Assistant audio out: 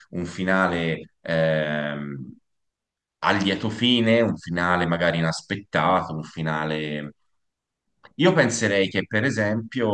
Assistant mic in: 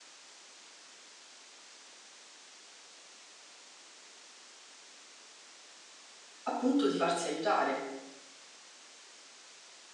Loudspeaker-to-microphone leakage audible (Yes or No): No